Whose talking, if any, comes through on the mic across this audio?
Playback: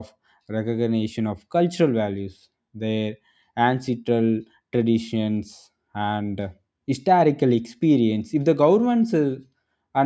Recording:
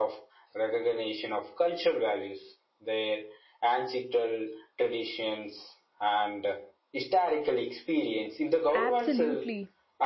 both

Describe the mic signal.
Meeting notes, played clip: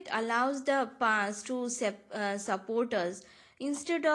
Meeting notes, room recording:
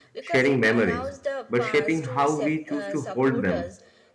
both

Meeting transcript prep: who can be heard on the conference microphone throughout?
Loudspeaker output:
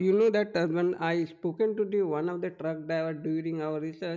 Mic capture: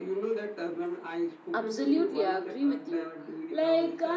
both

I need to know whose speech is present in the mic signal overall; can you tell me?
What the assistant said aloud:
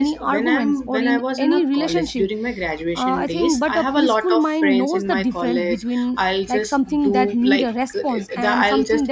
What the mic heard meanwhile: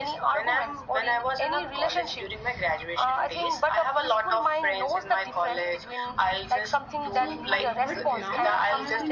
both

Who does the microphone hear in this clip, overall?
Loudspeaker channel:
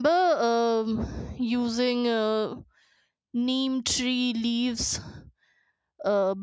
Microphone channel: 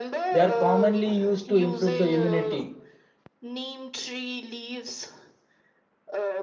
both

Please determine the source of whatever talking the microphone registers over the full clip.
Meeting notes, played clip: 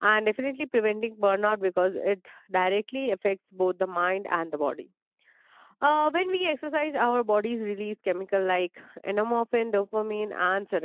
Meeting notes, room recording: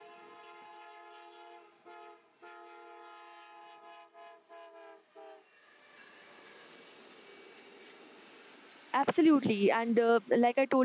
user only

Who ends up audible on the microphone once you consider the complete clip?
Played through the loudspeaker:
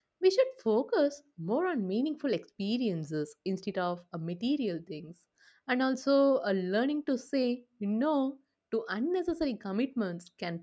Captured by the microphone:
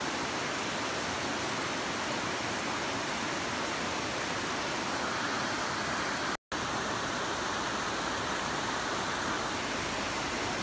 neither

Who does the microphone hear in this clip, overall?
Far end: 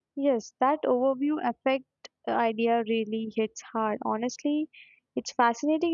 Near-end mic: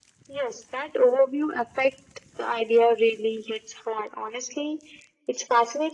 echo only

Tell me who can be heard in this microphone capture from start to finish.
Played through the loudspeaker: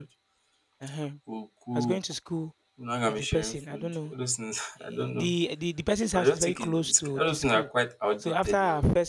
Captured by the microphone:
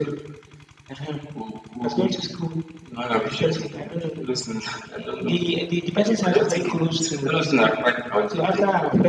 echo only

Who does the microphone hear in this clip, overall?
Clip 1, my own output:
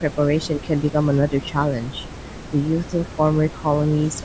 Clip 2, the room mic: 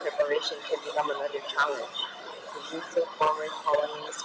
echo only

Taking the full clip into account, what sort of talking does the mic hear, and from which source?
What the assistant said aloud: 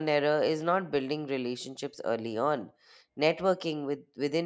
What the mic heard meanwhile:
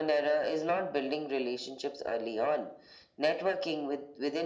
echo only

